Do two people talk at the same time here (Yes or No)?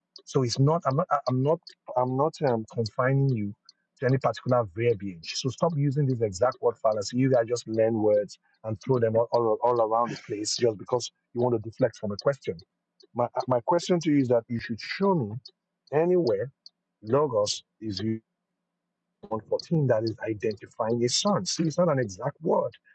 No